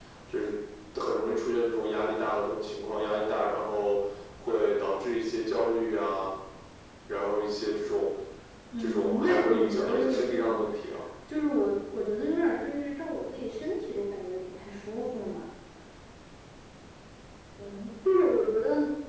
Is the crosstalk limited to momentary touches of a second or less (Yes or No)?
No